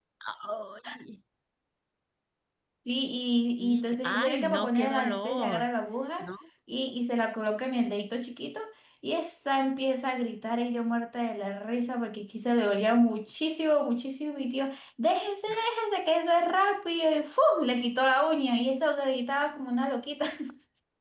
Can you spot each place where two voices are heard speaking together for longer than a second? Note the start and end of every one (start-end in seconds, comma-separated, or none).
3.6-5.7